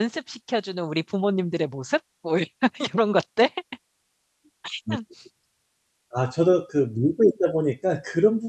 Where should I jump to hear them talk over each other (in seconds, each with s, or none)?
none